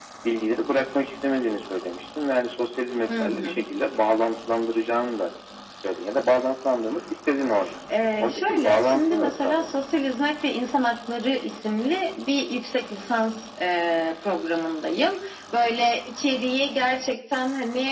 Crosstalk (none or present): present